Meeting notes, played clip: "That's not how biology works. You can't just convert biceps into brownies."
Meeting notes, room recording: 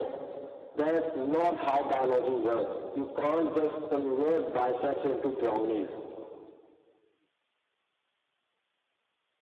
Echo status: present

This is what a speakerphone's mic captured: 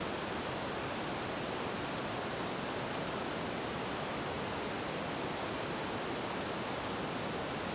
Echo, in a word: none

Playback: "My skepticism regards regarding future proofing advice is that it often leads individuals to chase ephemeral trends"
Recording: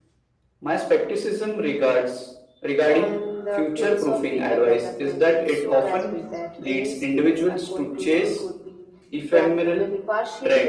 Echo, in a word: present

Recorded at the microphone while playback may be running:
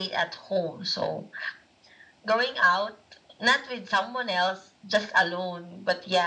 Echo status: present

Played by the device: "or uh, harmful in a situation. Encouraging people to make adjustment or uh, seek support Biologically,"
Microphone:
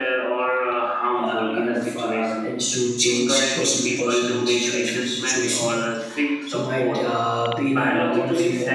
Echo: present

